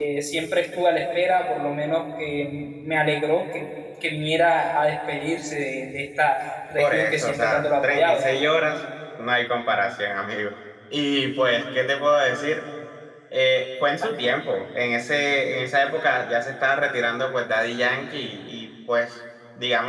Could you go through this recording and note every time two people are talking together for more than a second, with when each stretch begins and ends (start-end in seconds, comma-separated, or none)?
6.8-8.2